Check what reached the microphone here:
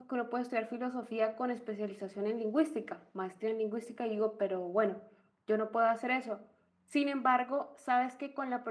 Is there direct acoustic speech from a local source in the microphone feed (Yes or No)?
Yes